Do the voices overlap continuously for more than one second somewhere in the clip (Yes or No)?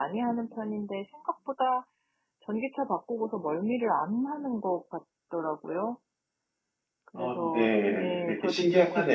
Yes